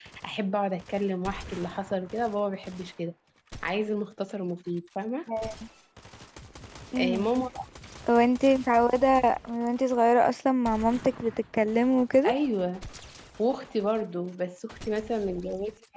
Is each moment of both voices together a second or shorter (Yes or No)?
Yes